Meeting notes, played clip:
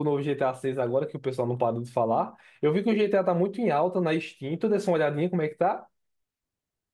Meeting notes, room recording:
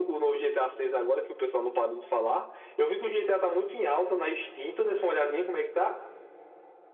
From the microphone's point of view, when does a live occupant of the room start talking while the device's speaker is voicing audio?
none

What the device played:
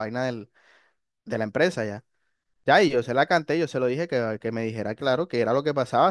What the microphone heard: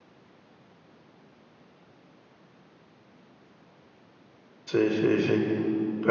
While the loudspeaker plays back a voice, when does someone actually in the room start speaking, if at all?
5 s

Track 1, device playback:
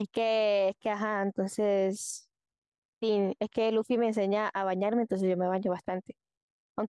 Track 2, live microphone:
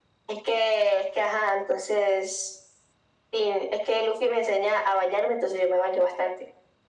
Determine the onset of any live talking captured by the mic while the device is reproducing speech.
none

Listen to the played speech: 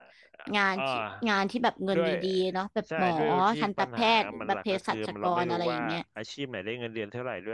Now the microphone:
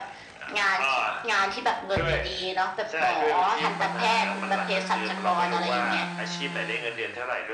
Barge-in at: none

